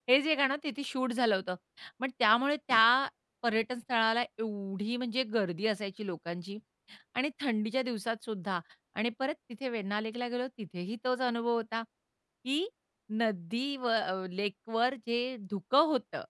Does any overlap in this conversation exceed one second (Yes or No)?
No